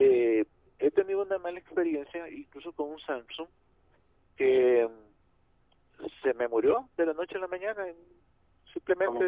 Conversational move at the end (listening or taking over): listening